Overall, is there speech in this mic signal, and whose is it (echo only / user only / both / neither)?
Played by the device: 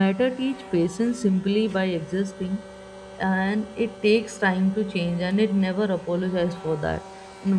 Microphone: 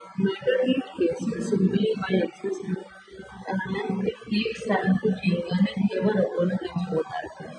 echo only